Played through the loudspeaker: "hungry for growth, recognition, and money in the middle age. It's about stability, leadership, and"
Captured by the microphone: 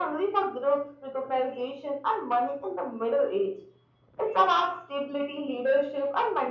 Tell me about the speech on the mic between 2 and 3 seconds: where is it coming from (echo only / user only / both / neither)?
echo only